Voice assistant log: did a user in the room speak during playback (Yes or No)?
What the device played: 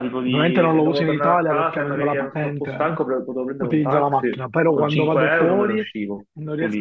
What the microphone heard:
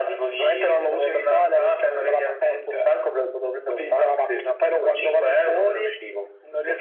No